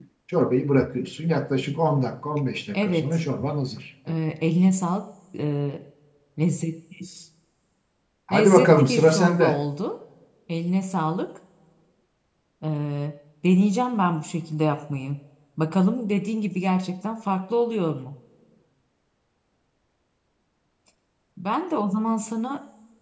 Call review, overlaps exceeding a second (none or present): present